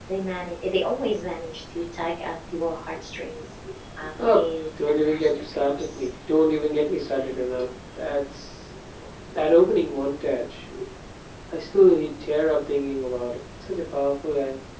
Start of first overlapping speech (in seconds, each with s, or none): 4.2 s